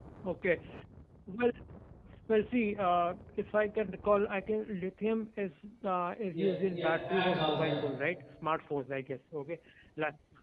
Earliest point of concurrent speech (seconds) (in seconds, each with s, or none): 6.3 s